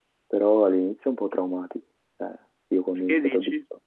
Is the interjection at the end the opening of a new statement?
No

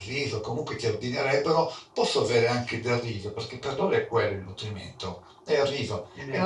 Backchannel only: Yes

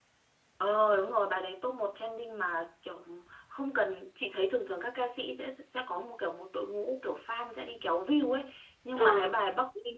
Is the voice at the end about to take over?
No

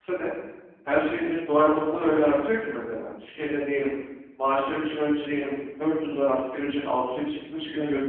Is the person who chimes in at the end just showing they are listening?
Yes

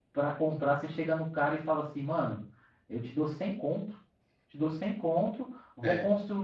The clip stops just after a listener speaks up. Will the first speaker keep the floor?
Yes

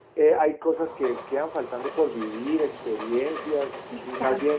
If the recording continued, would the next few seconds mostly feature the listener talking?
Yes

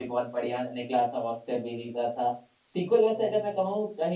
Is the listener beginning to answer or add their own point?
No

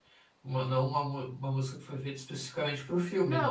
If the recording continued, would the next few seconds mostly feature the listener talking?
Yes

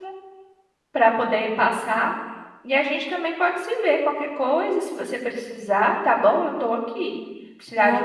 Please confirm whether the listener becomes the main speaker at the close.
No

